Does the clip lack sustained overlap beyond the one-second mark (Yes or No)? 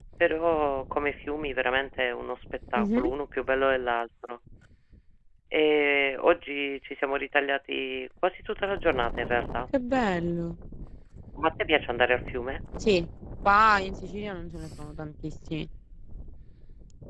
Yes